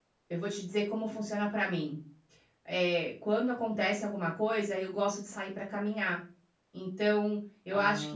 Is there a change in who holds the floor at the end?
No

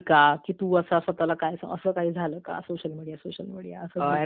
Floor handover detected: Yes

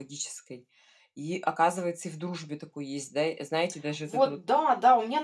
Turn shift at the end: Yes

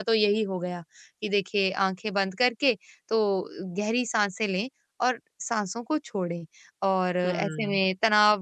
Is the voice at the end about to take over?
No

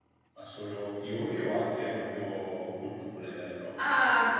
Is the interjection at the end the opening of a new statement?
Yes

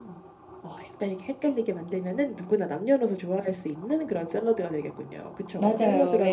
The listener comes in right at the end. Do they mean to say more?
Yes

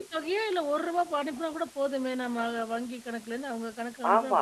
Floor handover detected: Yes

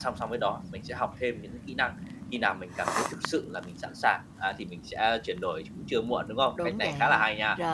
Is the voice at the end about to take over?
Yes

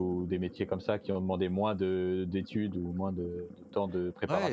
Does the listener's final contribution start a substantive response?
Yes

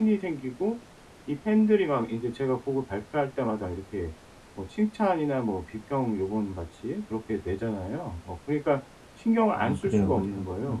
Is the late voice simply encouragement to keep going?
No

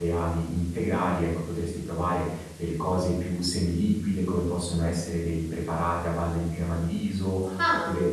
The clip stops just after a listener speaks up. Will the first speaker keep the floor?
Yes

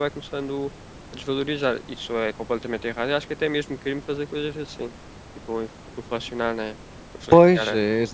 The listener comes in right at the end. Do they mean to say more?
Yes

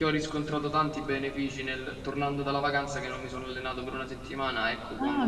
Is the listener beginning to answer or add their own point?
Yes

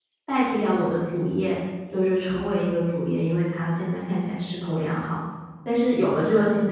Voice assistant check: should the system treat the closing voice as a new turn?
No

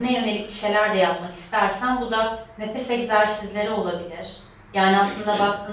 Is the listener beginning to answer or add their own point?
No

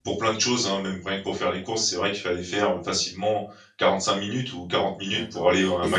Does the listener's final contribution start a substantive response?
Yes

